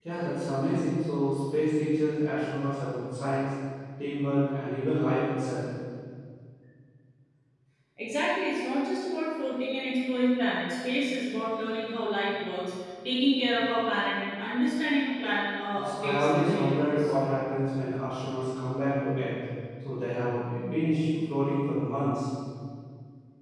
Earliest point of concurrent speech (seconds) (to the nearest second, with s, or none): 16 s